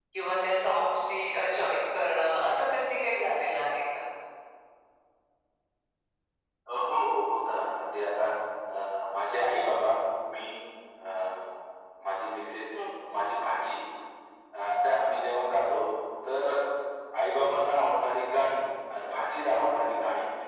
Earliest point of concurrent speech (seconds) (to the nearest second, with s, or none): none